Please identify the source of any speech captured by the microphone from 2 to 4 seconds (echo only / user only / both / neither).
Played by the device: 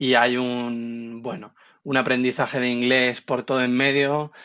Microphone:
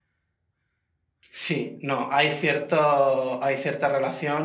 user only